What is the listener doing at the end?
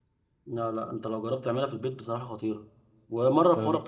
listening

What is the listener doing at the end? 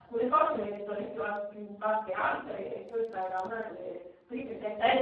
taking over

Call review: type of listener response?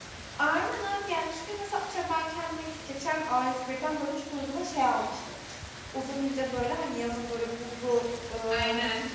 listening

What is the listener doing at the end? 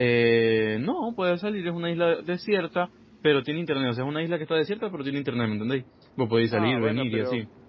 taking over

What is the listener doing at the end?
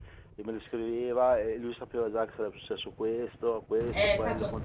taking over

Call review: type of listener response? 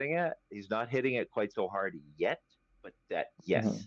listening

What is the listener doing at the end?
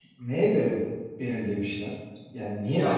taking over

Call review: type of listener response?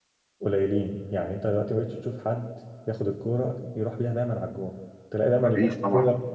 listening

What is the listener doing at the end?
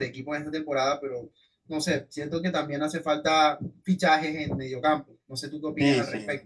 taking over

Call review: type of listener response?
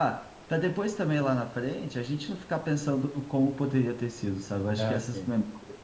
listening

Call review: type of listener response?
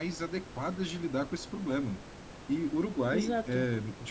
listening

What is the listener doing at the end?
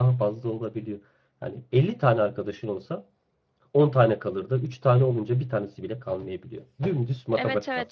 taking over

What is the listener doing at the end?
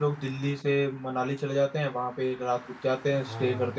listening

